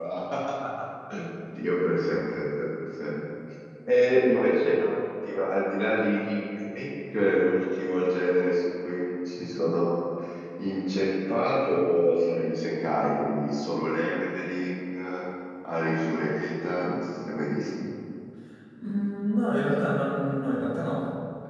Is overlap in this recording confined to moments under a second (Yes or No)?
Yes